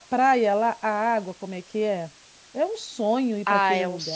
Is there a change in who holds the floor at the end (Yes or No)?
Yes